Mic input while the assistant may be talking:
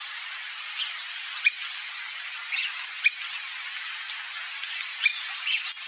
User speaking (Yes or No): No